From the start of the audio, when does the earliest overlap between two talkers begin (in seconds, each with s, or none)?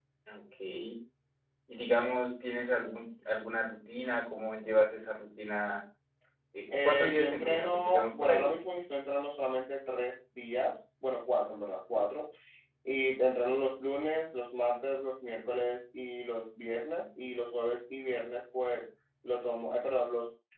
6.8 s